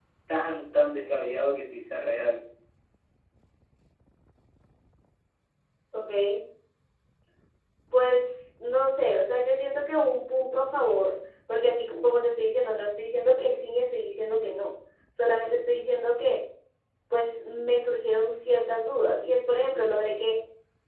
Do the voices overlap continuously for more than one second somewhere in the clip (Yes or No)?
No